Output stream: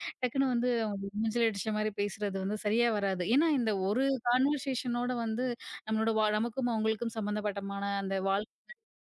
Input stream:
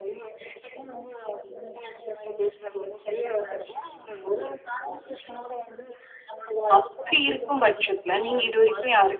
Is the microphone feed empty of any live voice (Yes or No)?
No